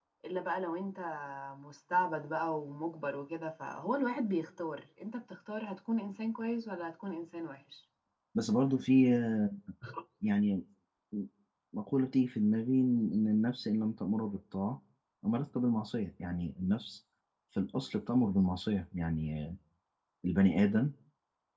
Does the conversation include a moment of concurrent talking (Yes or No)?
No